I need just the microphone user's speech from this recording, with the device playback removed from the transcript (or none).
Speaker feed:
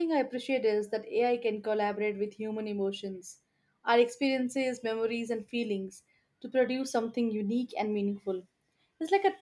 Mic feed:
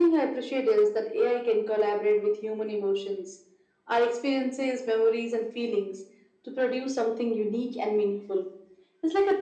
none